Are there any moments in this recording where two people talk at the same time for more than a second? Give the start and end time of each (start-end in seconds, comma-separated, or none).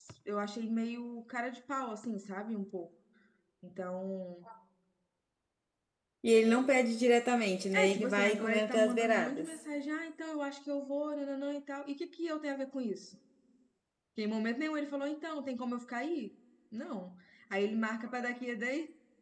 7.7-9.6